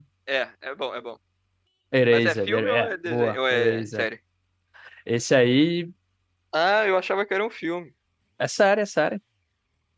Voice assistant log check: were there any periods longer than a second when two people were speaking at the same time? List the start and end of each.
2.1-4.1

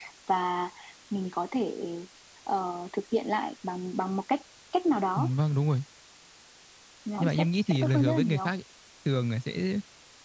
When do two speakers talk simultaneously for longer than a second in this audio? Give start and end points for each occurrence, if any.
7.2-8.5

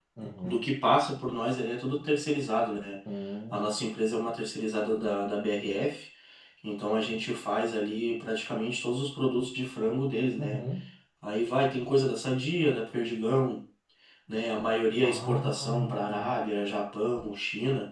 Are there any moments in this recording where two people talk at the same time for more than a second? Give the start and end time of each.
15.0-16.4

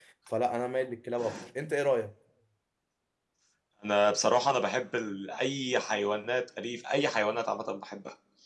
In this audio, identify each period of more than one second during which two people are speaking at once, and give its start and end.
none

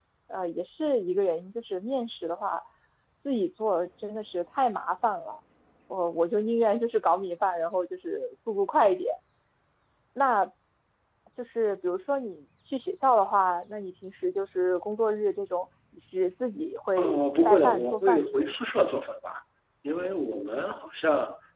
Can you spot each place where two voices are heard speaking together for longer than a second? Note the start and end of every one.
17.0-18.5

